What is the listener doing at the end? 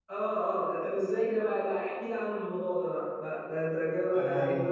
taking over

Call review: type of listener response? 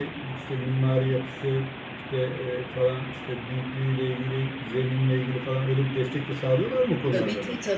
taking over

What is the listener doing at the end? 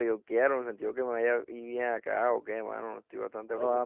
taking over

